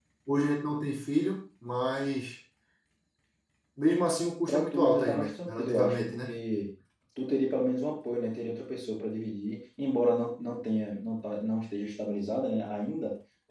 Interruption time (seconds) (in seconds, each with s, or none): 4.5 s